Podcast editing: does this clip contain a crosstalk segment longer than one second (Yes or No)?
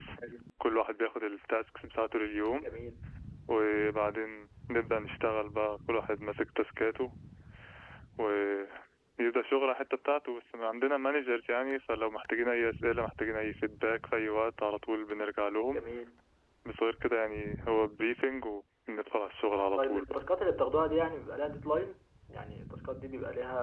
No